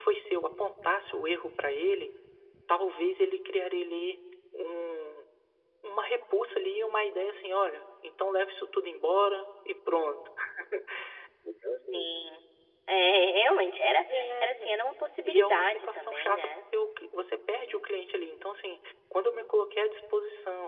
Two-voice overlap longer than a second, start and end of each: 15.2-16.5

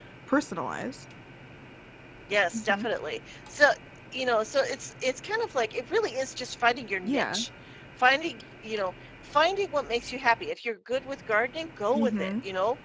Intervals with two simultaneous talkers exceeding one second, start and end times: none

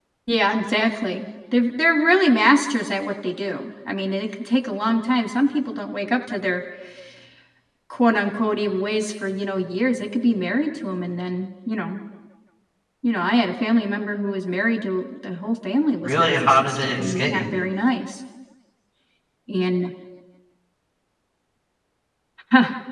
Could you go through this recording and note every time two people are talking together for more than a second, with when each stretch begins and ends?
16.0-17.5

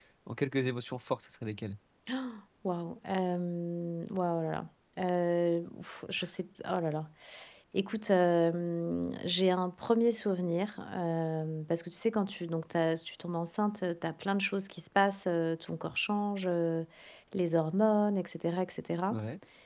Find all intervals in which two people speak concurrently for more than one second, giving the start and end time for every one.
none

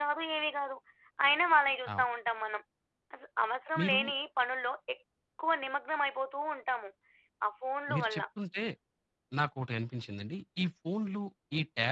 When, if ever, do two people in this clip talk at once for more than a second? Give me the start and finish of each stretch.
none

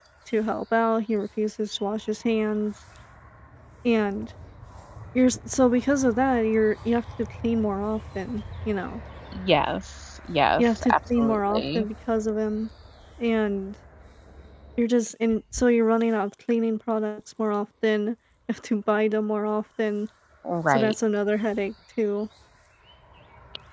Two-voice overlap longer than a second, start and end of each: 10.6-11.9

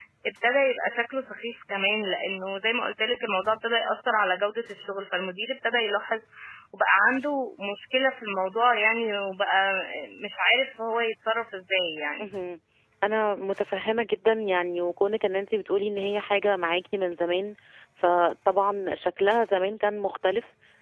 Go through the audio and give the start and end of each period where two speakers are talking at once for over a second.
none

